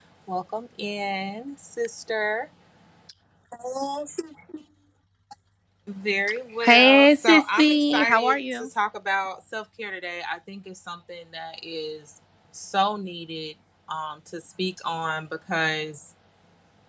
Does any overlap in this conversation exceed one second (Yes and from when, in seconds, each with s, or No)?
Yes, from 6.6 s